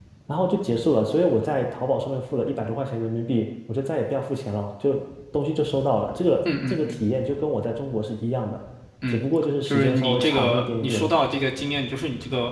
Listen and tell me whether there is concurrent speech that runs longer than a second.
Yes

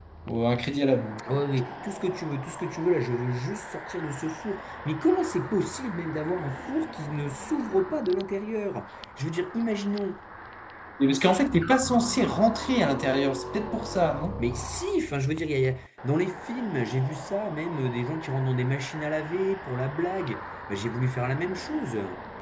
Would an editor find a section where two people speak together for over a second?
No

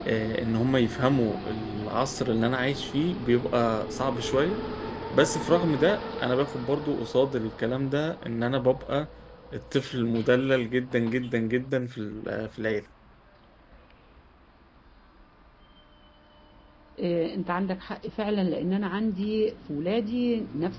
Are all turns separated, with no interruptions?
Yes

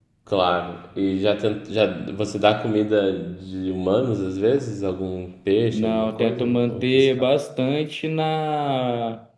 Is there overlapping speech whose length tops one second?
Yes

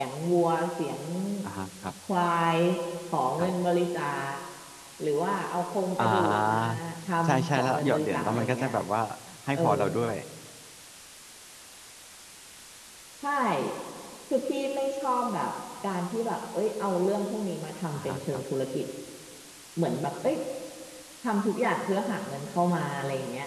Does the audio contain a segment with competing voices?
Yes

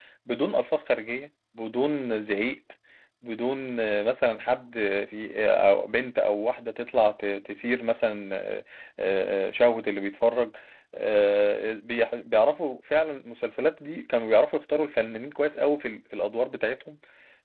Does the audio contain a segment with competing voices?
No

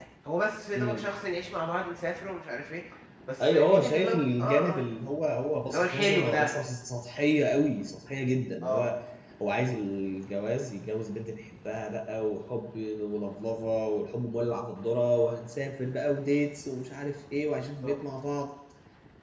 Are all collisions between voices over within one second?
No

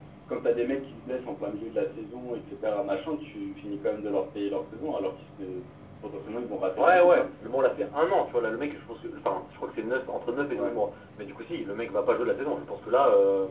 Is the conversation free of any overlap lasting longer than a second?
Yes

